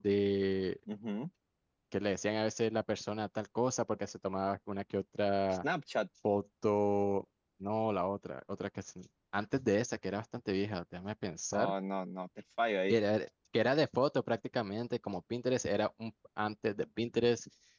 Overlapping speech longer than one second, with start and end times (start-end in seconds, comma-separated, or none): none